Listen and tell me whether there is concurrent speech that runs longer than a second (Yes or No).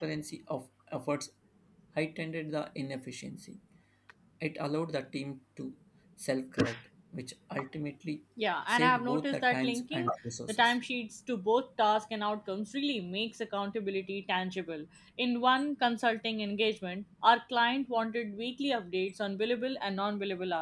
Yes